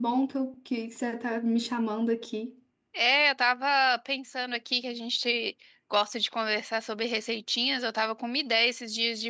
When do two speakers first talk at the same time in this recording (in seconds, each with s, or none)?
none